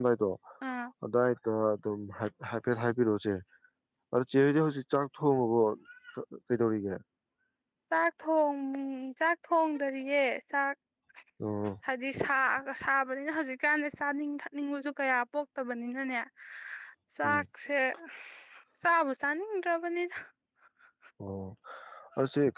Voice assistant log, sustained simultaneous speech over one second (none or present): none